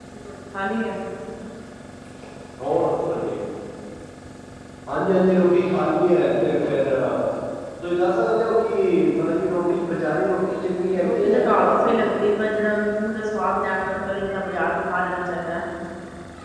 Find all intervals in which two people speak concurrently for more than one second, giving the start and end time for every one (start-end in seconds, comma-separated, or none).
11.0-12.3